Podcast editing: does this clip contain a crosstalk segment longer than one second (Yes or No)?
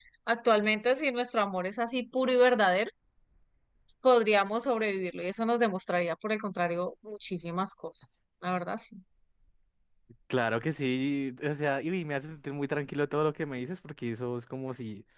No